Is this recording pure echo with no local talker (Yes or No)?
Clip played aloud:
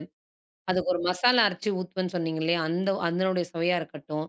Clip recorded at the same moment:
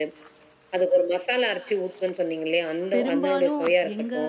No